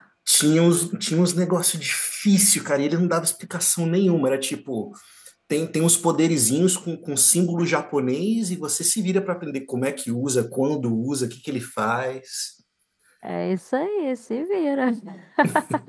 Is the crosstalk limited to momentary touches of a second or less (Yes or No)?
Yes